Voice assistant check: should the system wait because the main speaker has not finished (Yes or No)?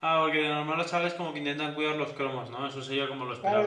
No